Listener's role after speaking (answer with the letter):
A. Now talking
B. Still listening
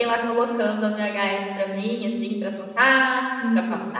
A